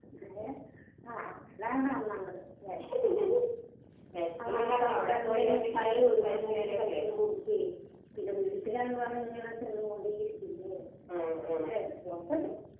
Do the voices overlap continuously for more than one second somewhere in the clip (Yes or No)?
Yes